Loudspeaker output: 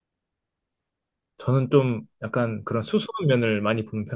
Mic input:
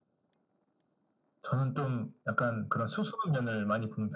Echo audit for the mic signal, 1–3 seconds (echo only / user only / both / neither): echo only